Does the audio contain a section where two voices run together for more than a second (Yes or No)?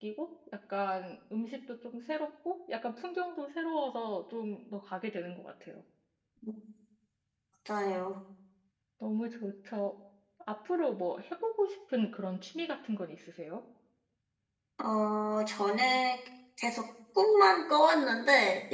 No